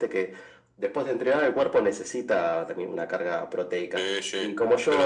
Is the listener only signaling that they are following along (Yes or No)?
No